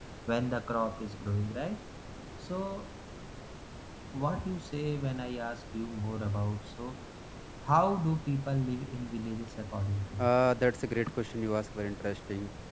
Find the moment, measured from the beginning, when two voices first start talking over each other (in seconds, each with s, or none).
none